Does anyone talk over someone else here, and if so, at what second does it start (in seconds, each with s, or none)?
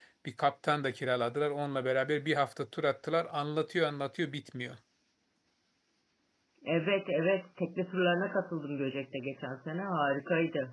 none